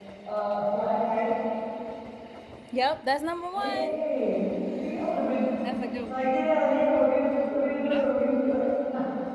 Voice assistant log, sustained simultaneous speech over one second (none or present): none